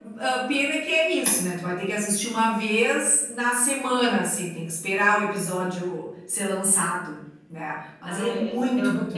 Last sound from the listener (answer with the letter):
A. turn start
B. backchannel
A